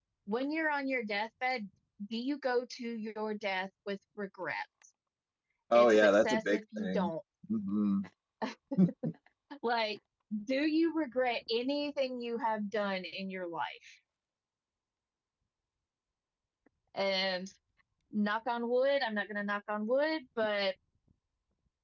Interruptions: present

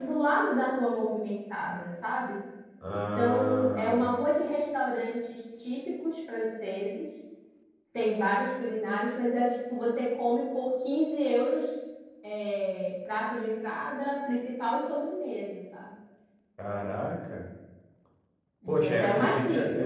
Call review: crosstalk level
present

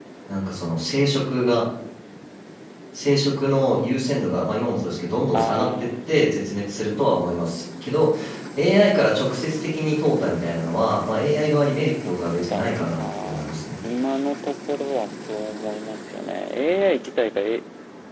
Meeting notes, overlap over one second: present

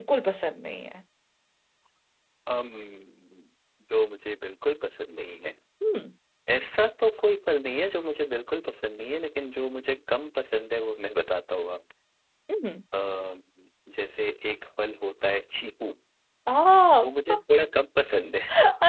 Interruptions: none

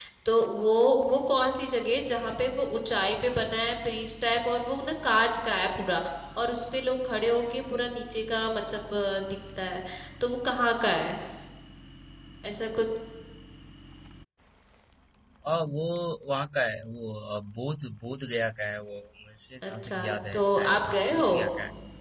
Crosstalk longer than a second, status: present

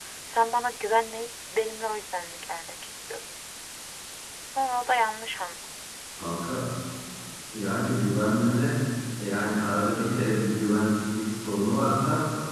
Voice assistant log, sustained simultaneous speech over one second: none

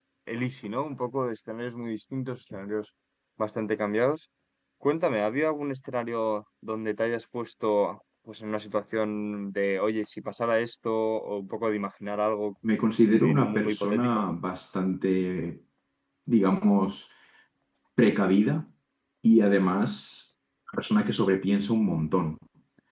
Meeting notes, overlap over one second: present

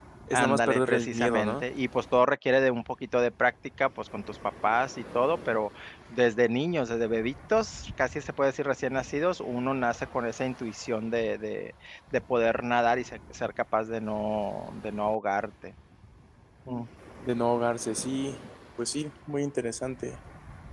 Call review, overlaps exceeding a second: present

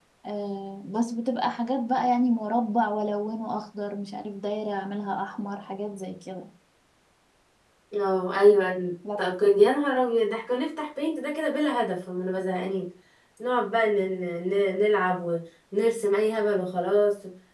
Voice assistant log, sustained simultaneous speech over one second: none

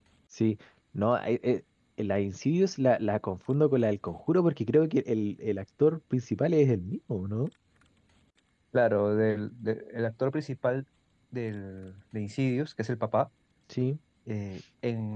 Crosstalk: none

